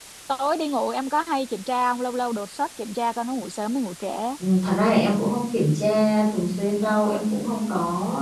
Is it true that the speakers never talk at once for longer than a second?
Yes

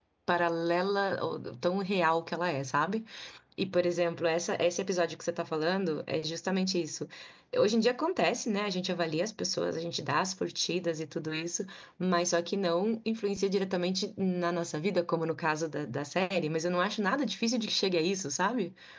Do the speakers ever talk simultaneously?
No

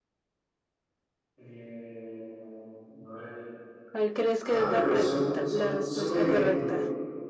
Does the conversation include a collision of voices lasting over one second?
Yes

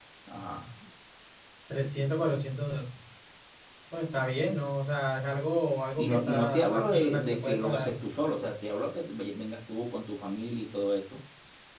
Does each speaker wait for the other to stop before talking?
No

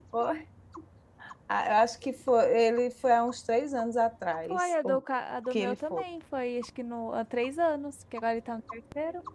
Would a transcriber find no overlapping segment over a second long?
Yes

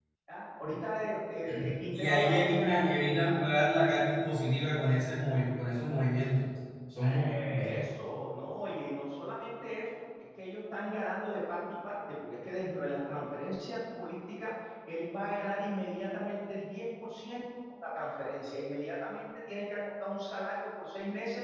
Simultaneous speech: Yes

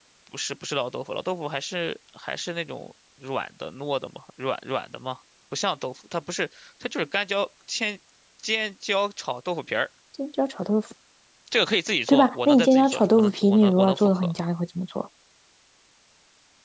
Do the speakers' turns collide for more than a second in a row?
Yes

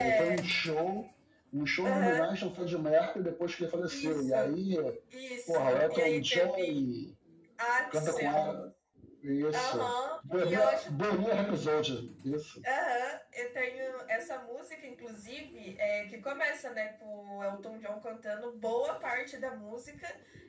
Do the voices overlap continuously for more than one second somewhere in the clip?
Yes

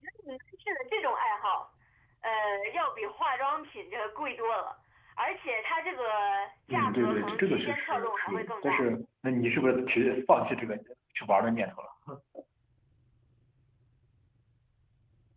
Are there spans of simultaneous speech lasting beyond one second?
Yes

